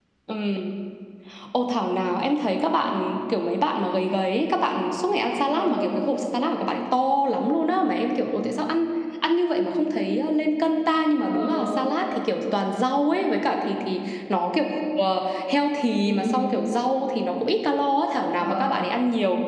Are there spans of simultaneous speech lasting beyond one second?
No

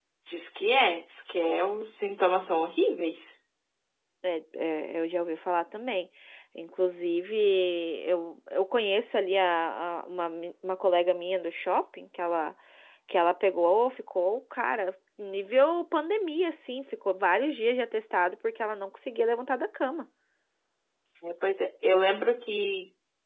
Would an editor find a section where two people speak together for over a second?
No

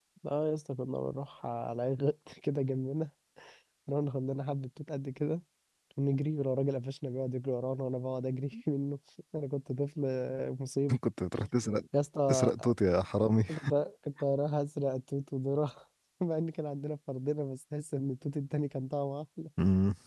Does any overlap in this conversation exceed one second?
No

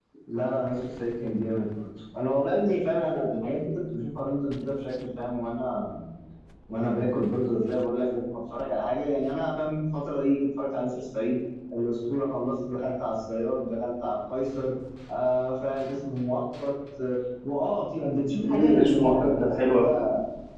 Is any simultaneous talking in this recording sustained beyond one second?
Yes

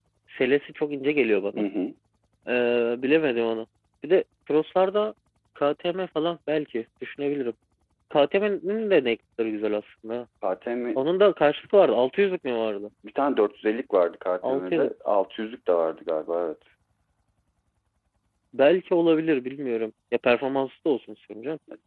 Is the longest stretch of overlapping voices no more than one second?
Yes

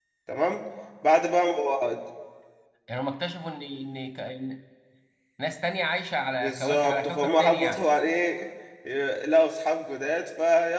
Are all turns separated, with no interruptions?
No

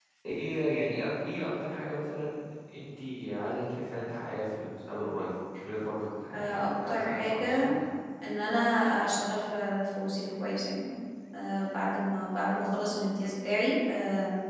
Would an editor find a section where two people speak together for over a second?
Yes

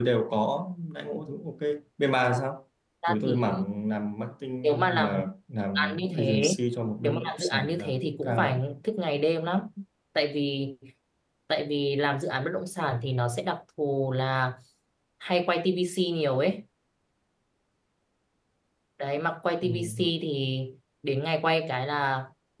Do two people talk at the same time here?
Yes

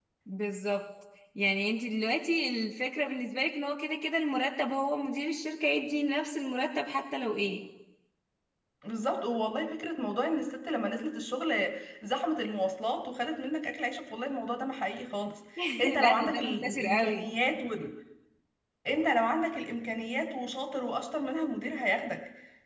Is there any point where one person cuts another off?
Yes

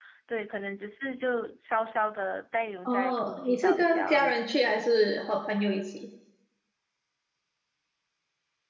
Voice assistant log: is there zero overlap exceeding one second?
No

